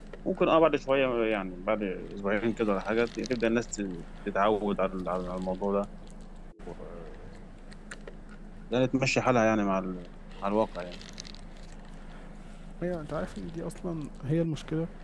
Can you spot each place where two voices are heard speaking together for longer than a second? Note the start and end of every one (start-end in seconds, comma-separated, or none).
none